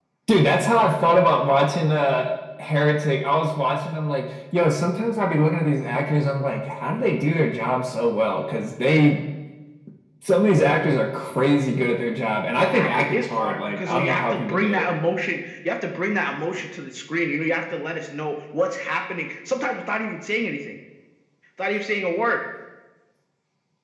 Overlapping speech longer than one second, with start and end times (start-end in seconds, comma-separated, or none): 12.6-14.8